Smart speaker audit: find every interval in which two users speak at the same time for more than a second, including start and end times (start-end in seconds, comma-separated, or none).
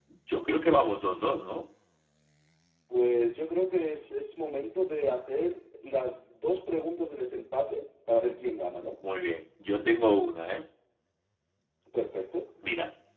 none